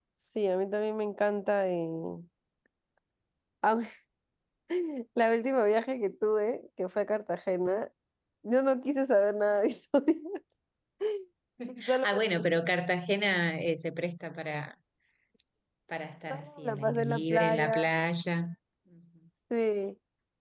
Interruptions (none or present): present